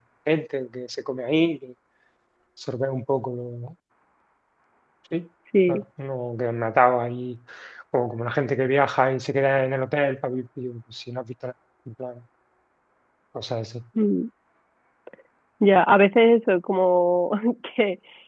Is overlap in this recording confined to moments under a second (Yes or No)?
Yes